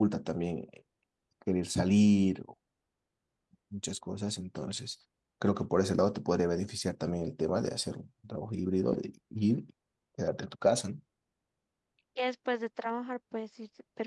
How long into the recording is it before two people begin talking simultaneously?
none

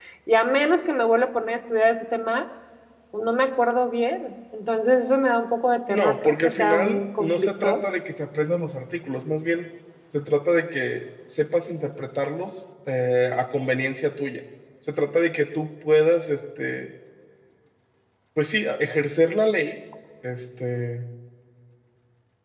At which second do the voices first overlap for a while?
5.9 s

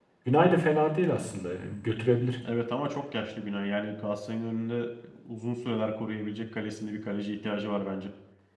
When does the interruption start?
none

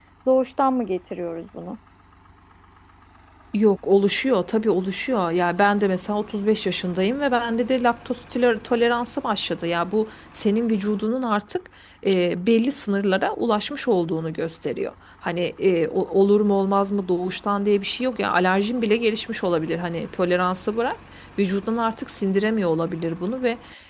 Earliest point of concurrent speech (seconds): none

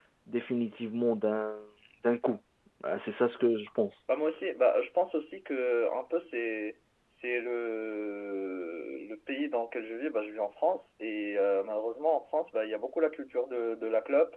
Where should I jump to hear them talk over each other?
none

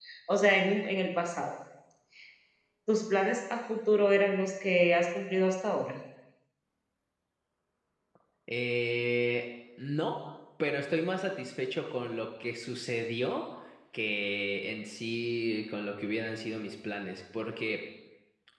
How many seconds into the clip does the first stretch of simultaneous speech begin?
none

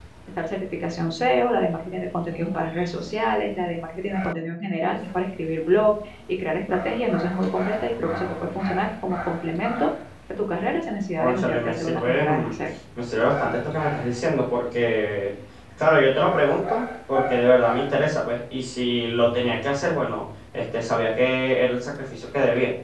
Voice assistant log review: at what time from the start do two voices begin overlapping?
11.2 s

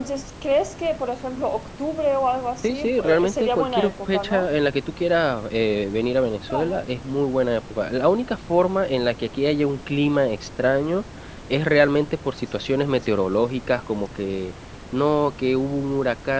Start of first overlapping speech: 2.6 s

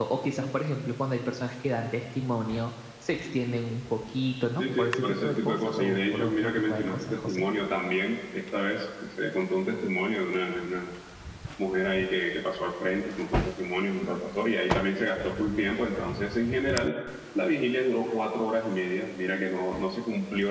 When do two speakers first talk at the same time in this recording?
4.6 s

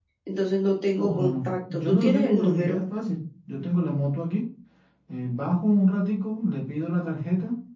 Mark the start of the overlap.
1.0 s

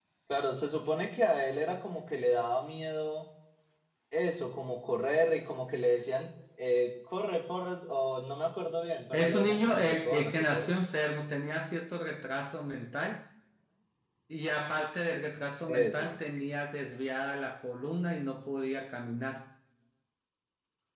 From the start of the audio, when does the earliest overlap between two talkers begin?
9.1 s

